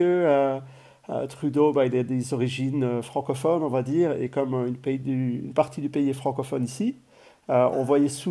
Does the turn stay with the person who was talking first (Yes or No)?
Yes